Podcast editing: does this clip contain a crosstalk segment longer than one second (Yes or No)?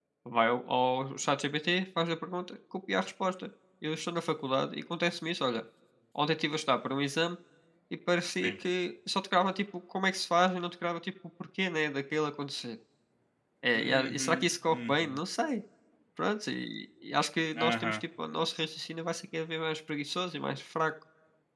Yes